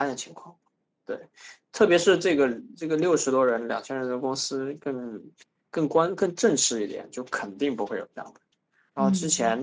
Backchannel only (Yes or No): Yes